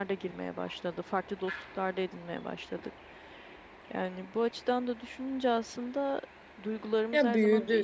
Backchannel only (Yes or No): Yes